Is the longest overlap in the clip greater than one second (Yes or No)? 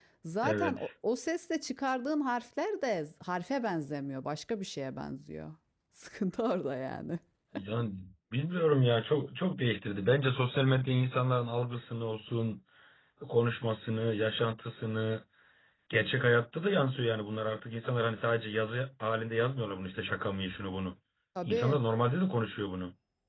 No